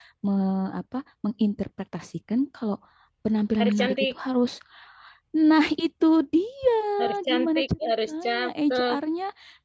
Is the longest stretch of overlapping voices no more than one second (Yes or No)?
No